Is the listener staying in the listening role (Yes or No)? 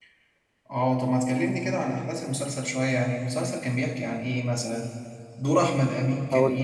Yes